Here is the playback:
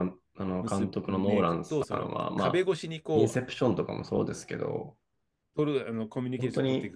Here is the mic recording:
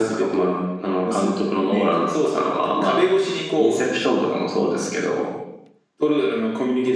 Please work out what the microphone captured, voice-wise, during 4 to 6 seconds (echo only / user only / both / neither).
echo only